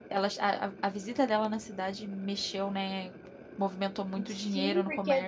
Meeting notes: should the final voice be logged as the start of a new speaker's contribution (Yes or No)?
Yes